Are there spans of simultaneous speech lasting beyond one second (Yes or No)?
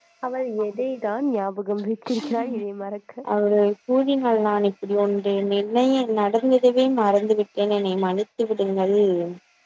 No